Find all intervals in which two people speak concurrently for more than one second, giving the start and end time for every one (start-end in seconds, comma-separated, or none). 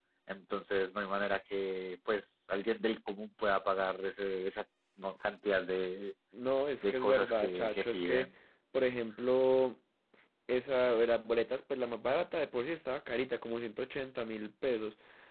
6.8-8.3